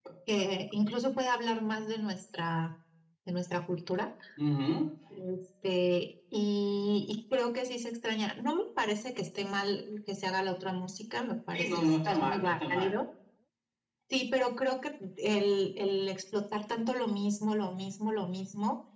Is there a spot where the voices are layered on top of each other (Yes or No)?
Yes